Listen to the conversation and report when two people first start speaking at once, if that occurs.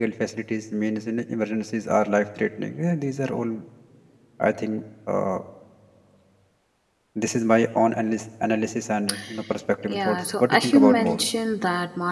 9.9 s

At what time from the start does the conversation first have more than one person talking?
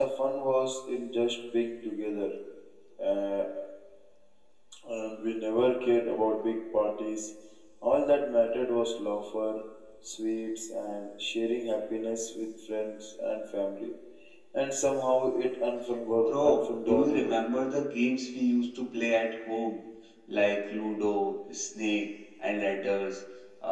16.2 s

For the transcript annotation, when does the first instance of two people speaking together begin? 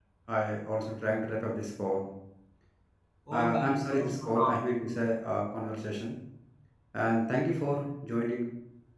3.4 s

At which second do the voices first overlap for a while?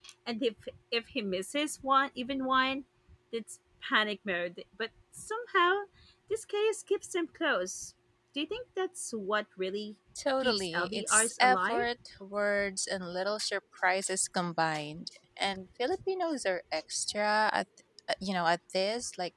10.4 s

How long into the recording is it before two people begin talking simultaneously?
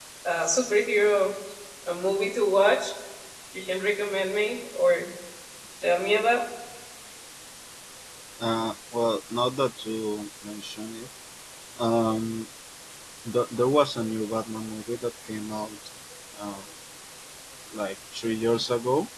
none

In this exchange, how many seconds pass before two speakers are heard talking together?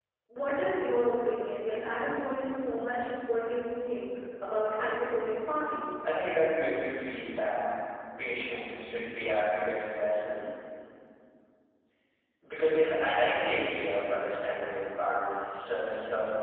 none

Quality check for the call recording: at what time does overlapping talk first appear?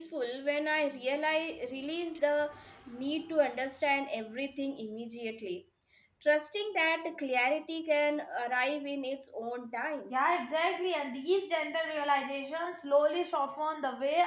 none

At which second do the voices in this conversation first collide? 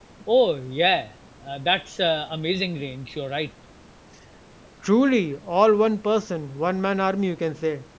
none

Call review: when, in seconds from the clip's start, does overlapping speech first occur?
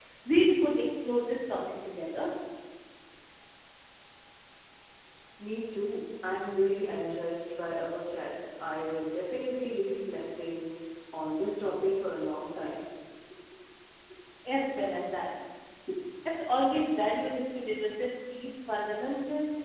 none

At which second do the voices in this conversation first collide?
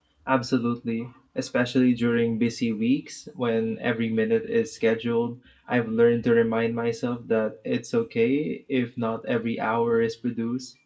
none

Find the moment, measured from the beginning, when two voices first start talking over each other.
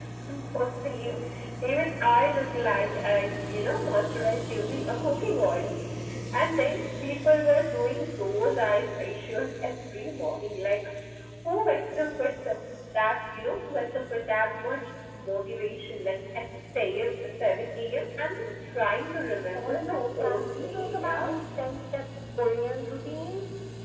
19.6 s

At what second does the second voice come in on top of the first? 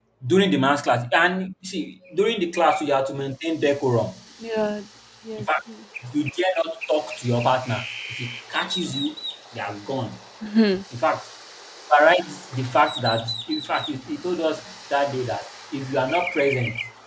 none

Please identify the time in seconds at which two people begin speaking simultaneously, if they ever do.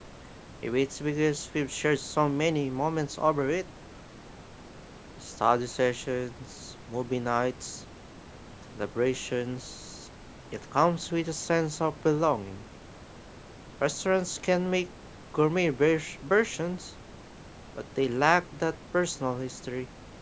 none

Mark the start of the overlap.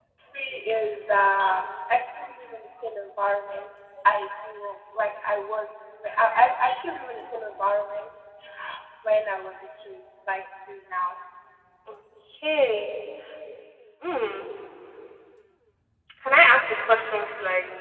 none

